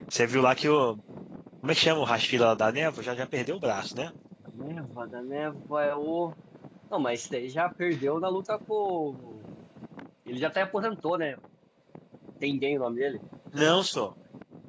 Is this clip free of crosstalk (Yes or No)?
Yes